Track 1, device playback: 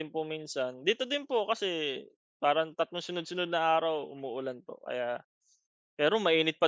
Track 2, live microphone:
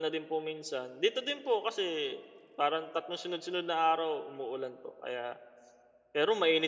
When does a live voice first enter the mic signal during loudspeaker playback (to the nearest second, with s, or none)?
none